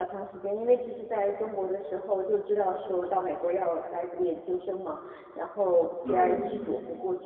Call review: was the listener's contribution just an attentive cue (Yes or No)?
Yes